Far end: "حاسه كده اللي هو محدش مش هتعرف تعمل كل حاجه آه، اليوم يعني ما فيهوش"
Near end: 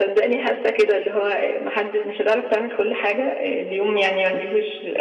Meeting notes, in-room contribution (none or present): none